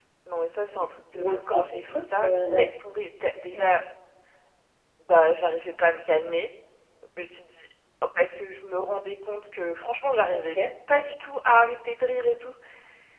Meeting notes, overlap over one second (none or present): present